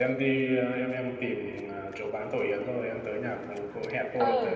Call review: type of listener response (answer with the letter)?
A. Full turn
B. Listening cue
A